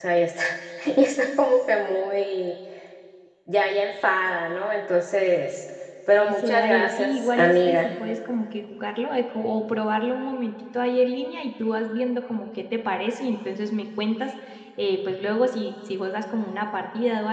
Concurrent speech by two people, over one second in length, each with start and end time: 6.2-7.9

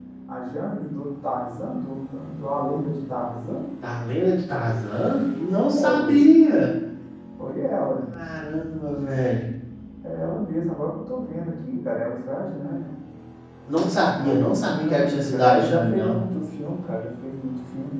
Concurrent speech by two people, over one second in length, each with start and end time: 14.2-16.2

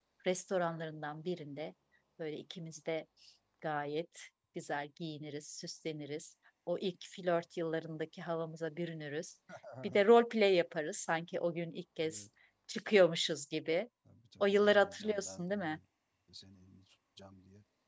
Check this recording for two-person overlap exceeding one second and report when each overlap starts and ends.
14.4-15.8

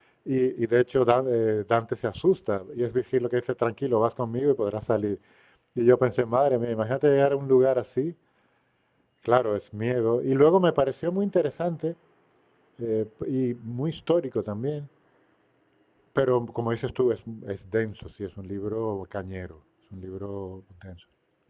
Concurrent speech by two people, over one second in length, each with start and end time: none

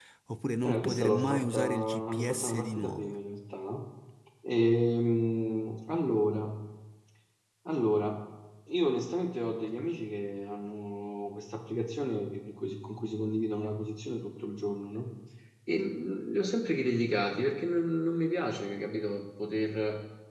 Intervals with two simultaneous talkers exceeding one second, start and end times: 0.6-3.2

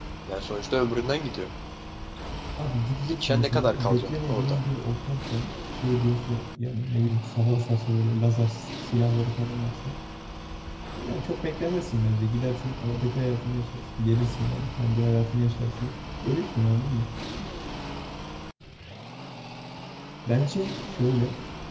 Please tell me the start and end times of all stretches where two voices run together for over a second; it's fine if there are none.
3.0-4.6

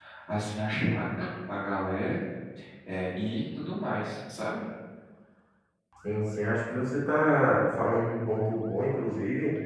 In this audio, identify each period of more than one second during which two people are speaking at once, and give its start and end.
none

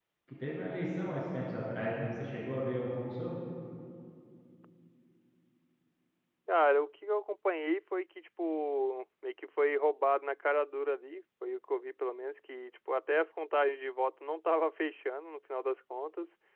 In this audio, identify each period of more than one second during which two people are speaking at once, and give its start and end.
none

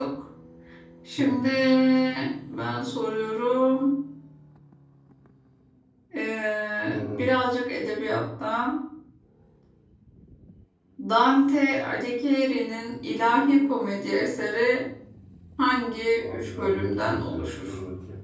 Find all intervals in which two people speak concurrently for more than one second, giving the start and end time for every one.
16.2-17.7

